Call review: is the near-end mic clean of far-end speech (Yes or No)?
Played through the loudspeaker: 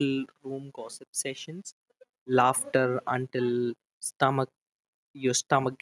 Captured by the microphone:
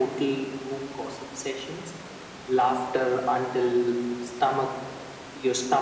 No